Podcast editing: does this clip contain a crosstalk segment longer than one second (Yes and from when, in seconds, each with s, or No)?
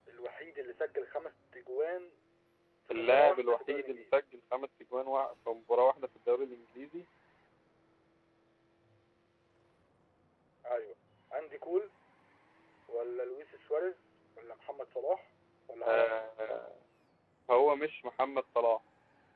Yes, from 2.9 s